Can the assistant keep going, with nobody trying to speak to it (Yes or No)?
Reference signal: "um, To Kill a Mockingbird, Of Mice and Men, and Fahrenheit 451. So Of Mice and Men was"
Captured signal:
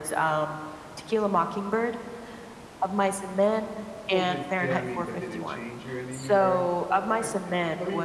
No